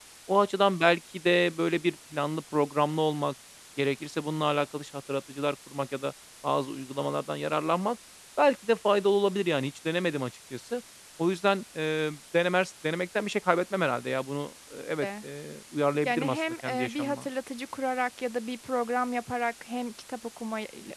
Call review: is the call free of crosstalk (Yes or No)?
No